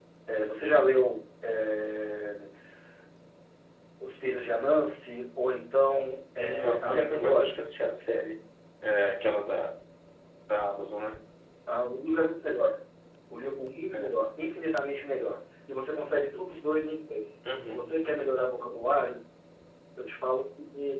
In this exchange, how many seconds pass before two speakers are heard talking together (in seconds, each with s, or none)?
6.4 s